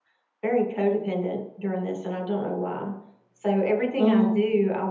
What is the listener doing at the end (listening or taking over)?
listening